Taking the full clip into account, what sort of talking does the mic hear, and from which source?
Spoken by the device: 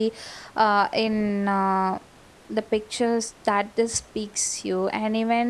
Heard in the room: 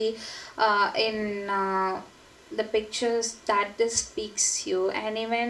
echo only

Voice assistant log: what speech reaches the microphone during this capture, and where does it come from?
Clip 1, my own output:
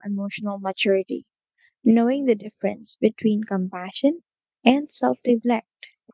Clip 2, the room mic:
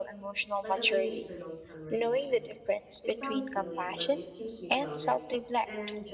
both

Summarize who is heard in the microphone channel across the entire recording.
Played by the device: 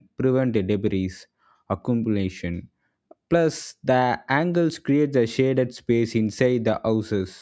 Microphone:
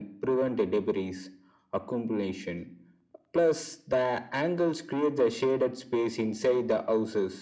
echo only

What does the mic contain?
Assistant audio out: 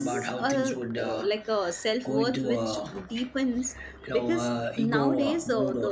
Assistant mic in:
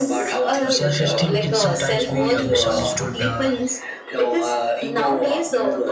both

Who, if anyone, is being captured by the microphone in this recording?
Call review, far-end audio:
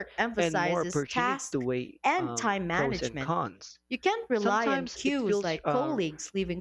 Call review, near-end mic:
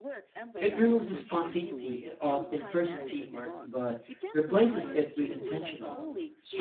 both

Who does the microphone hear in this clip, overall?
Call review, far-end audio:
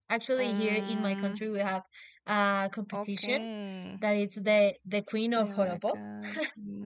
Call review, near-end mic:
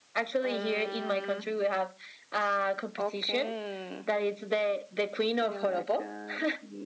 echo only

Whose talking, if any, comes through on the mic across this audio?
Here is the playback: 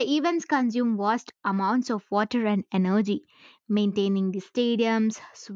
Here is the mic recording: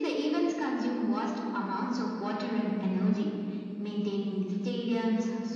echo only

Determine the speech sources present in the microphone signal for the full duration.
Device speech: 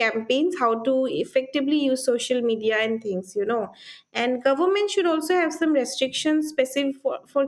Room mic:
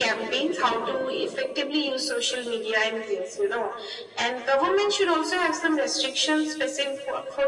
echo only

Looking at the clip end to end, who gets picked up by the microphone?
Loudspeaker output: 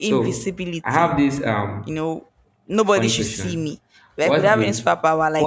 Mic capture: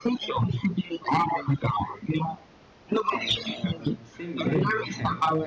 both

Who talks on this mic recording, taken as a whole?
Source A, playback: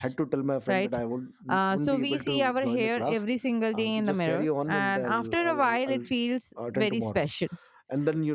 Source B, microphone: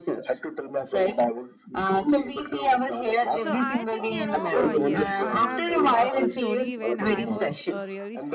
both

